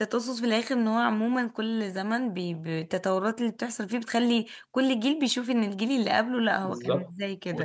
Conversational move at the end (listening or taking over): taking over